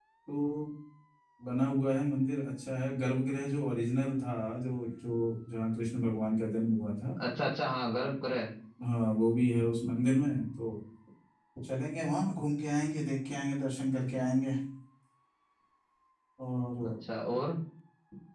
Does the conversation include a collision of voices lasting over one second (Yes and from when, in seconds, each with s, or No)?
No